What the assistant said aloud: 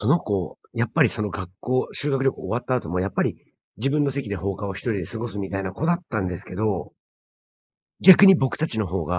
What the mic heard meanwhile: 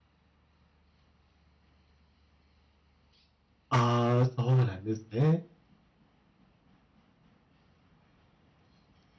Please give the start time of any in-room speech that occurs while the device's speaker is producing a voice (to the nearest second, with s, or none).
4 s